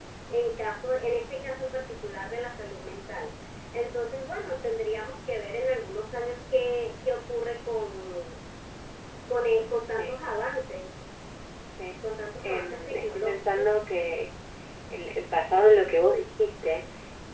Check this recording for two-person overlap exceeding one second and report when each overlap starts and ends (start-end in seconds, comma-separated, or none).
12.4-13.7